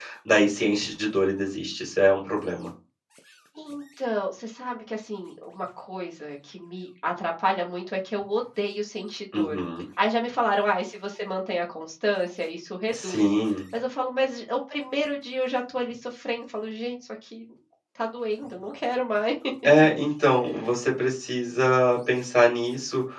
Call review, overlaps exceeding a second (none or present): none